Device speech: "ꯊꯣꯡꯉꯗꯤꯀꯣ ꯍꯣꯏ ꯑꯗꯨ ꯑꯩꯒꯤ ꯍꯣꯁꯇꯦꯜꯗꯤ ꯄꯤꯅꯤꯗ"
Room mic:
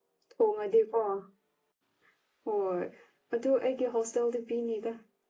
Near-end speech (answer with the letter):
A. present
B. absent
B